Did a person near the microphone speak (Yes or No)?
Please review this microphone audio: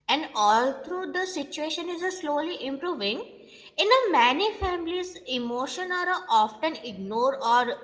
Yes